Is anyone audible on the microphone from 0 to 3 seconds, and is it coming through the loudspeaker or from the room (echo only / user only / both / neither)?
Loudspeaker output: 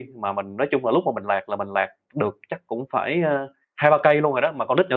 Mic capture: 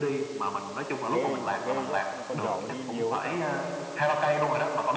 both